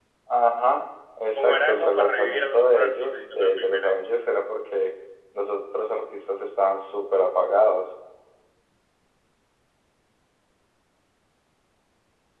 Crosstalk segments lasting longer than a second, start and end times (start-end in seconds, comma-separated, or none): 1.4-3.9